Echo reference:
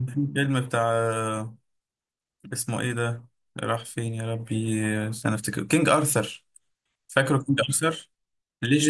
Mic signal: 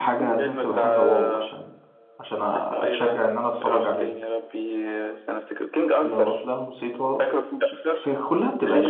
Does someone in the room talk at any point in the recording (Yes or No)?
Yes